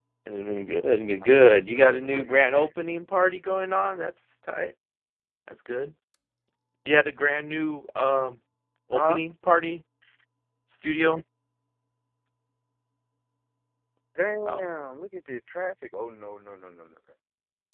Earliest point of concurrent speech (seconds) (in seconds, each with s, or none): 1.4 s